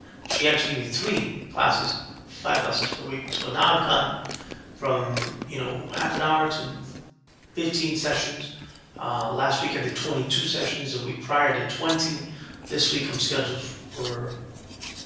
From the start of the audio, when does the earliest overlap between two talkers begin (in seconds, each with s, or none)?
none